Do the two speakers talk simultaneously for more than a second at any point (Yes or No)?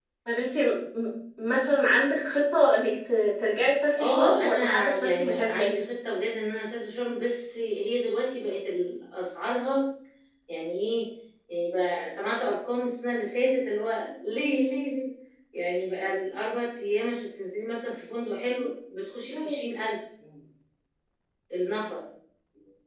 Yes